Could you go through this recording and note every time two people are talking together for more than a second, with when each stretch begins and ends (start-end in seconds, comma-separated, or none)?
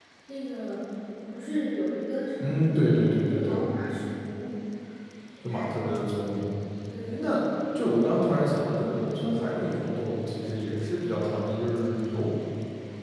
2.4-3.6